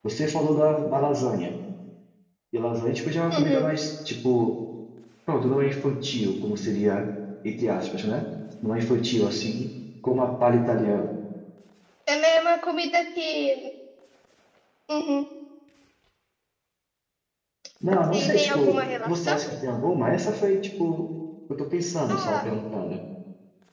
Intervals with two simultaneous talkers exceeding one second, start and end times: 18.1-19.6

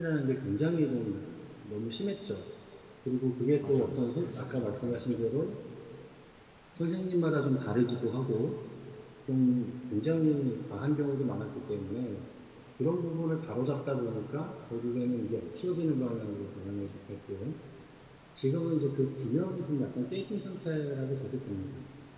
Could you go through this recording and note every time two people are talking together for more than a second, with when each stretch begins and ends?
3.6-5.3

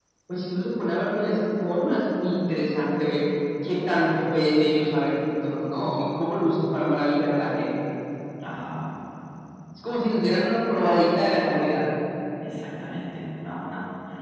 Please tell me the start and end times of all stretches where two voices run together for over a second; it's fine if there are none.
none

